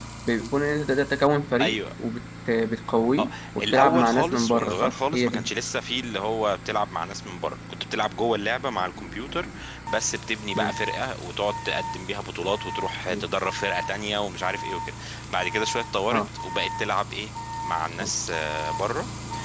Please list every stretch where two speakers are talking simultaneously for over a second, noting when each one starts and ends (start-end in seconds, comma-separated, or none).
3.2-5.5